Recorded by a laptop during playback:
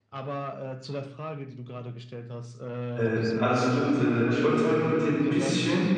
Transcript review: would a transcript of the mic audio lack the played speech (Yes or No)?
No